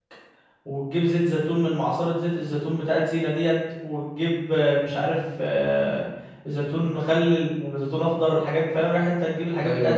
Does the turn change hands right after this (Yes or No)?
No